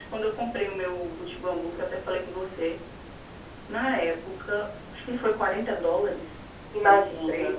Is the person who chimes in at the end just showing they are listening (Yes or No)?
Yes